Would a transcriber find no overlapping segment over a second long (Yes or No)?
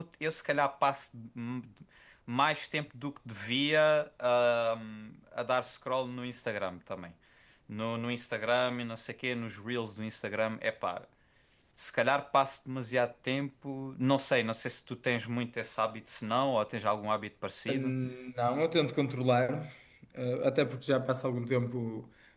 Yes